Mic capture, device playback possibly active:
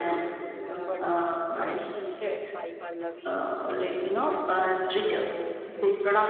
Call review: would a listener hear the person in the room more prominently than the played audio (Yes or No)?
No